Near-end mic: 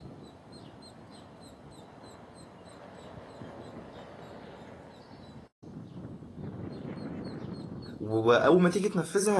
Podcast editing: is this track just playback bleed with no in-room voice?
No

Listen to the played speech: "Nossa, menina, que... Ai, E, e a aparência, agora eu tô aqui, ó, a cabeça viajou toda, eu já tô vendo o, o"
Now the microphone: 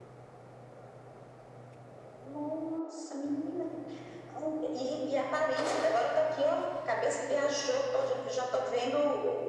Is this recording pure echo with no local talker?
Yes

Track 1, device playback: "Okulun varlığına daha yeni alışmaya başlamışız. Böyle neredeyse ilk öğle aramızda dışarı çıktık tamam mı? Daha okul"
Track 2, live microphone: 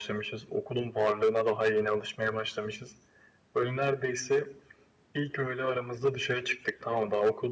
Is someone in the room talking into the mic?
No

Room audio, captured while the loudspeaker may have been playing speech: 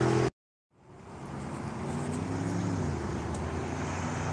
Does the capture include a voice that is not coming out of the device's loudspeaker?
No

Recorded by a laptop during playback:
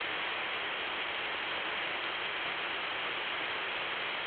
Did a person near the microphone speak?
No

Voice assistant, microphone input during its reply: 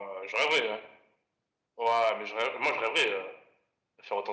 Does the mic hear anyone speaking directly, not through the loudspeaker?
No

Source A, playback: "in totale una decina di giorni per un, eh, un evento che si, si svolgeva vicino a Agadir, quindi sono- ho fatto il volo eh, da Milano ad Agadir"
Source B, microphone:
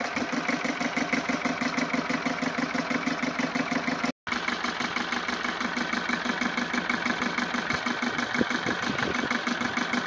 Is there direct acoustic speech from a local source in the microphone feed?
No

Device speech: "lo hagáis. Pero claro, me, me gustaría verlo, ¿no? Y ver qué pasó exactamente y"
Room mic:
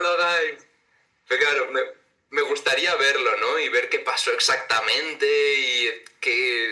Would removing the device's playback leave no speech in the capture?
Yes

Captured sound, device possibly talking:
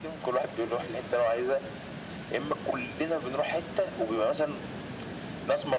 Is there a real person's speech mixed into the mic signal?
No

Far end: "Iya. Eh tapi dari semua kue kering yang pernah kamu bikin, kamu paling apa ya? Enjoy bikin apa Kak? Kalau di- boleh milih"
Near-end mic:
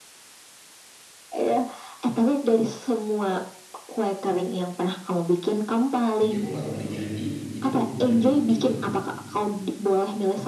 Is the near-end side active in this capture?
Yes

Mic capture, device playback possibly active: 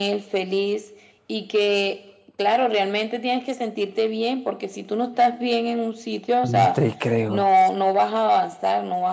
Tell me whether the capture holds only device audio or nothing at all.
No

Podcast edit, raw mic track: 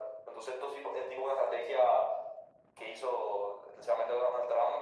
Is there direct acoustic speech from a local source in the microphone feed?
No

